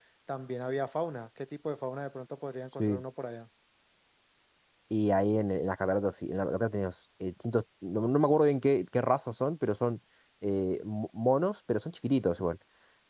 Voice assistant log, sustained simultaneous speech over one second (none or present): none